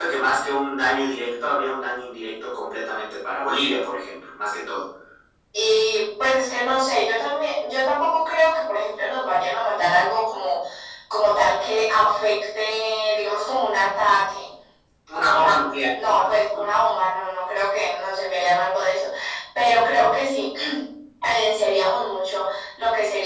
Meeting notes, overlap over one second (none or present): present